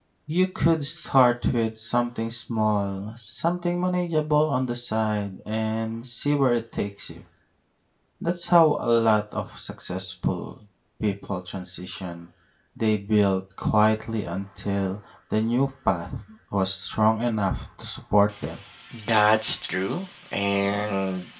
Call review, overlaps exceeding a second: none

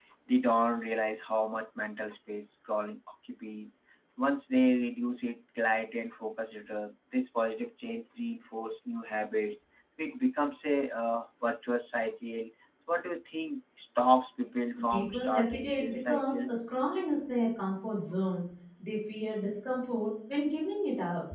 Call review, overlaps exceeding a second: present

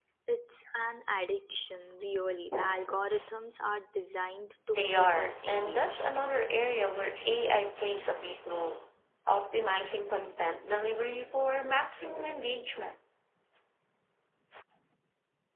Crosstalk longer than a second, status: present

